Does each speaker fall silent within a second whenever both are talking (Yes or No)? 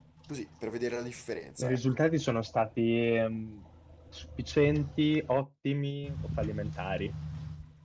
Yes